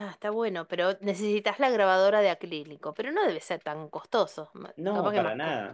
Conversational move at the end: taking over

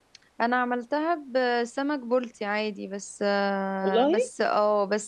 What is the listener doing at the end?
listening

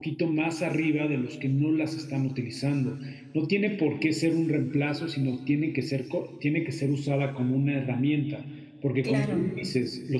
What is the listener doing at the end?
listening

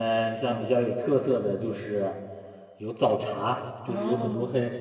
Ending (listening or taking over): listening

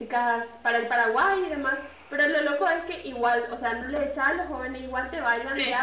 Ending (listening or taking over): listening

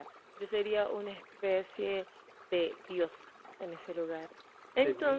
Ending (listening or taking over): listening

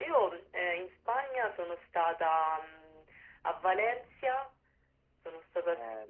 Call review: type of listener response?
taking over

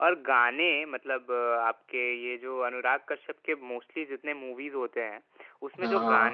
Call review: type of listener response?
listening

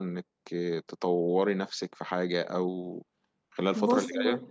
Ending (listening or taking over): taking over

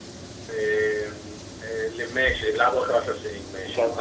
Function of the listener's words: taking over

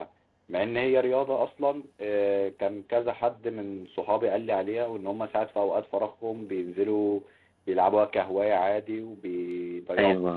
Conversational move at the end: taking over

